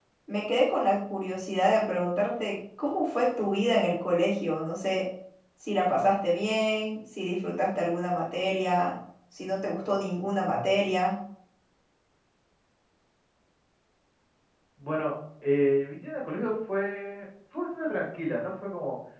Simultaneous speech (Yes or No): No